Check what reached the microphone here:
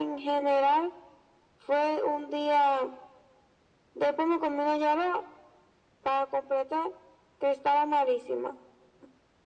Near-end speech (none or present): none